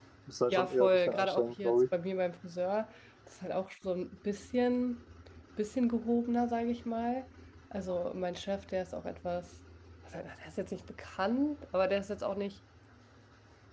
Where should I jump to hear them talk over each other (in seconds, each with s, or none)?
0.5 s